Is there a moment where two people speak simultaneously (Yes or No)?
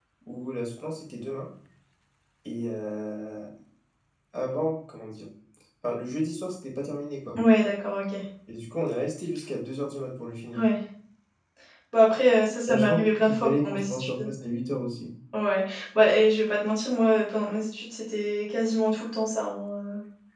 Yes